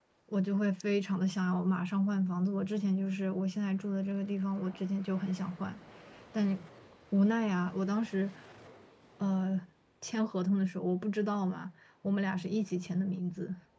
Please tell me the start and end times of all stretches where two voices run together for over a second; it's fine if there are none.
none

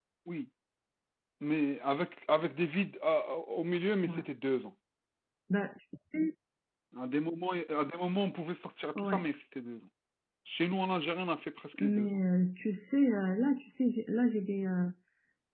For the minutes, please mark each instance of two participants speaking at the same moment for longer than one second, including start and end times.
none

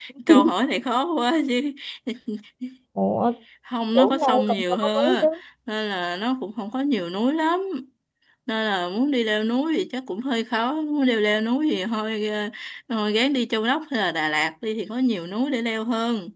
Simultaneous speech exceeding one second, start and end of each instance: 4.0-5.3

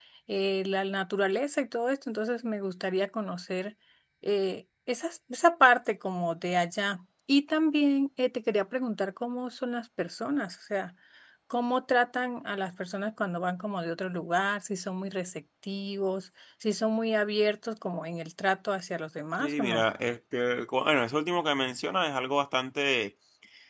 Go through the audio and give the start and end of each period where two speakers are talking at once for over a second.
none

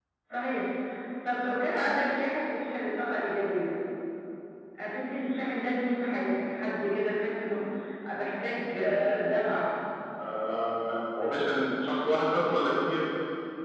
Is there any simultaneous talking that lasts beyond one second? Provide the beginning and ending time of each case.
none

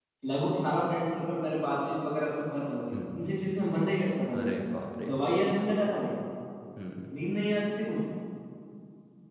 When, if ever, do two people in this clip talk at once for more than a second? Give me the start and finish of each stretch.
none

